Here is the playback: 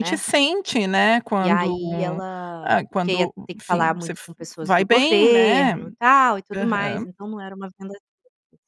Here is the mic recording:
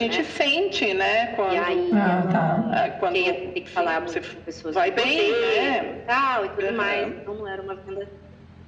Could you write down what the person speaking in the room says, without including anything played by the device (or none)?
Ah, tá.